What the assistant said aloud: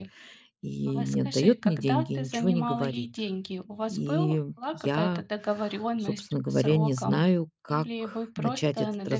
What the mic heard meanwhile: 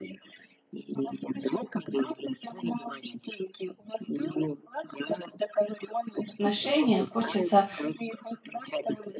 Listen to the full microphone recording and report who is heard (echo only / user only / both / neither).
both